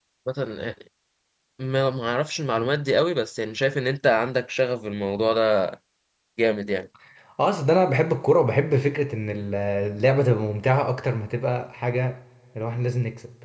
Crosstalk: none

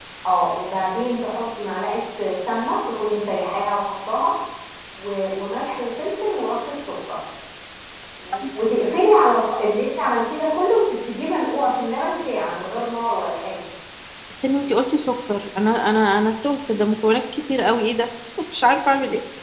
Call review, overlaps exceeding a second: none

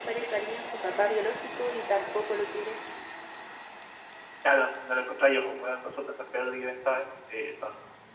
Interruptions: none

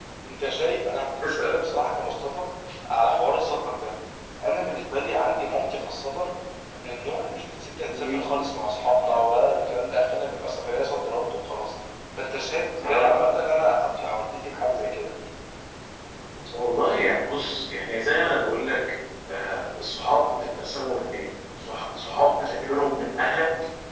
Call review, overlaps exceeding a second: none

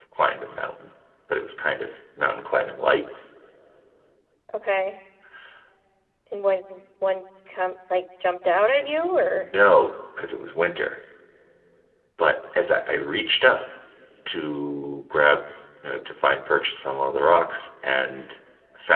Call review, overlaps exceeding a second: none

